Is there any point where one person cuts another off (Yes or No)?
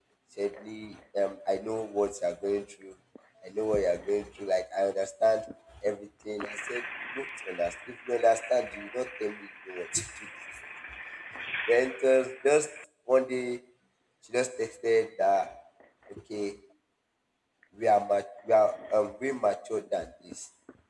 No